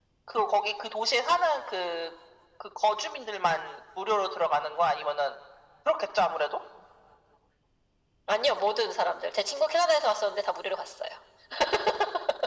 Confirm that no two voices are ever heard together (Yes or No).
Yes